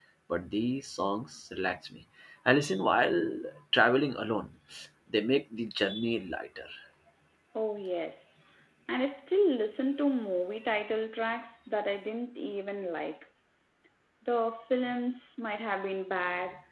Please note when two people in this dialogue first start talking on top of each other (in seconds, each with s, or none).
none